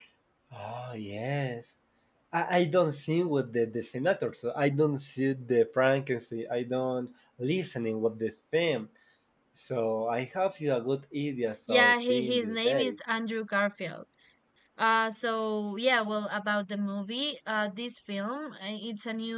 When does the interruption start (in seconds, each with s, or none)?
11.7 s